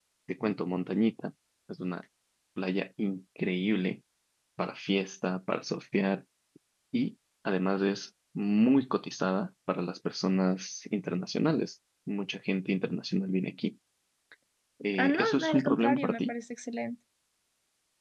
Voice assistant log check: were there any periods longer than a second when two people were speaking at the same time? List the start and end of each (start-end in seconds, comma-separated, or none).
15.0-16.3